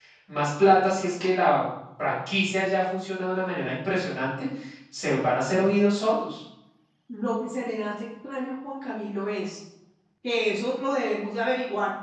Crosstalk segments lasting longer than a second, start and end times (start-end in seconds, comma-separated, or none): none